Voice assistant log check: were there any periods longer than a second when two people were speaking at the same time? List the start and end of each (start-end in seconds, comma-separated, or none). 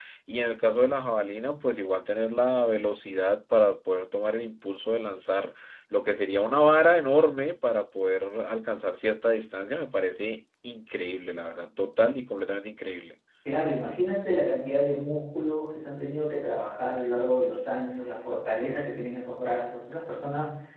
none